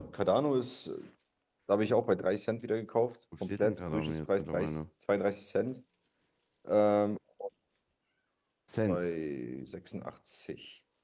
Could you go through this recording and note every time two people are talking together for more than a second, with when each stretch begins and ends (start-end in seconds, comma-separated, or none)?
3.4-4.7